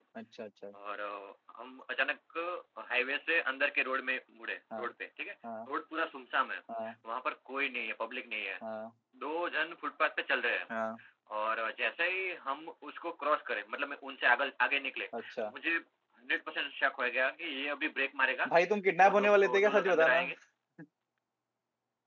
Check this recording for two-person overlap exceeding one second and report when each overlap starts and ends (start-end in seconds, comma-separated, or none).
19.0-20.2